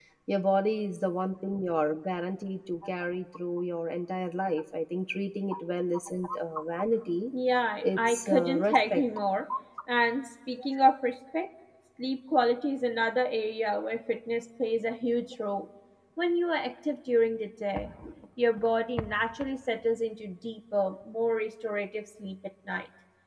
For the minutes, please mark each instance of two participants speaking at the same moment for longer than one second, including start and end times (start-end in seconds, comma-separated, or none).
7.8-9.0